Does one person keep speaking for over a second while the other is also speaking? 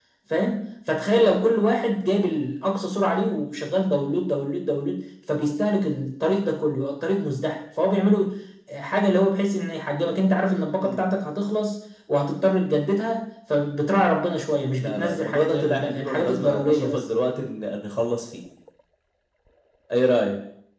Yes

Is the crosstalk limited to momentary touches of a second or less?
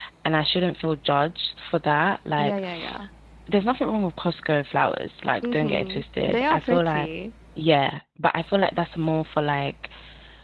No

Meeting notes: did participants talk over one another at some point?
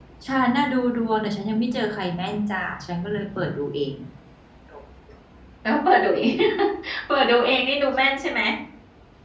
No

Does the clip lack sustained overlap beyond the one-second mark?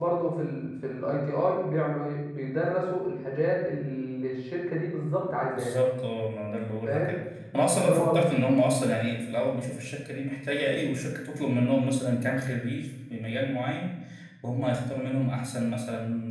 Yes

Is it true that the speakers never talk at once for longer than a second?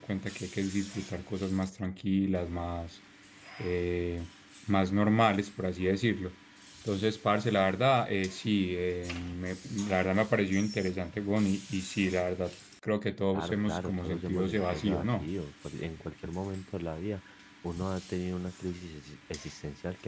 No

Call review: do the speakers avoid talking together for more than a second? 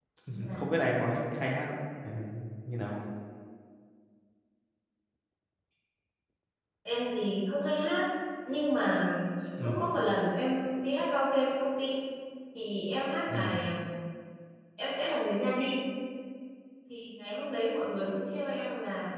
Yes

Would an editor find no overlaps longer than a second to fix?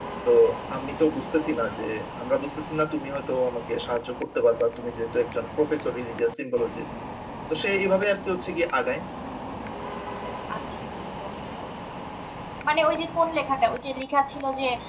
Yes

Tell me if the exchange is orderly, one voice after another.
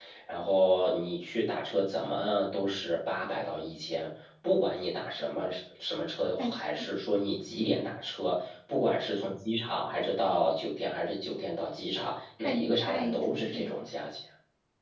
No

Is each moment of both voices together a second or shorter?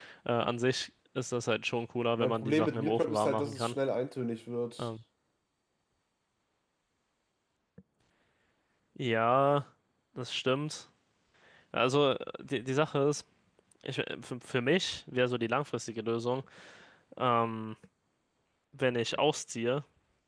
No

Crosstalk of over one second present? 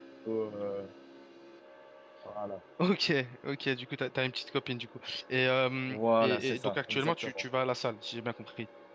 Yes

